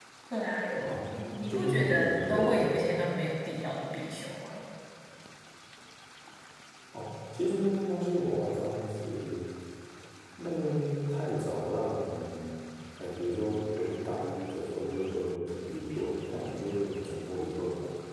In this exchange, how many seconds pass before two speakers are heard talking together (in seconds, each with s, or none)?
1.2 s